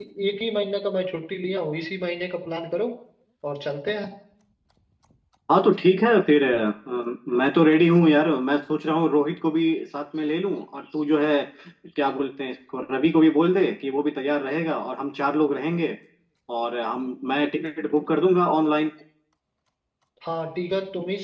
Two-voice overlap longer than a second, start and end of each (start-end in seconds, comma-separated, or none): none